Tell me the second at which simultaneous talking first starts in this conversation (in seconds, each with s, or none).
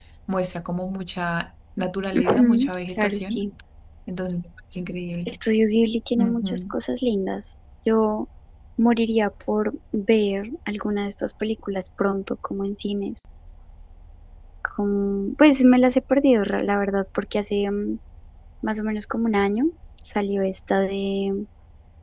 2.1 s